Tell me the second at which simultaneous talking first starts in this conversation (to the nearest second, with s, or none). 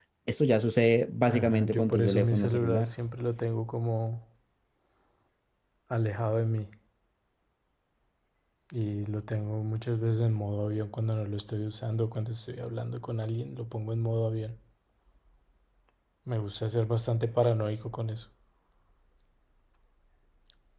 1 s